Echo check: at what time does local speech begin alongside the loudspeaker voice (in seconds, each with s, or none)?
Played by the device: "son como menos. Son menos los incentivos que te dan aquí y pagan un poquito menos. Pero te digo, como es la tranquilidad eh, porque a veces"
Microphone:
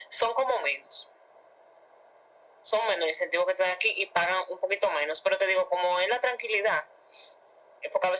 none